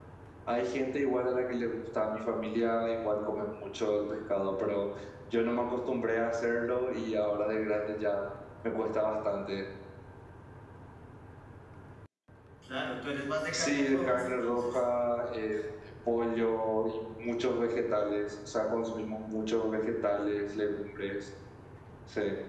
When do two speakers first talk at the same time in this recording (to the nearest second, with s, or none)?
14 s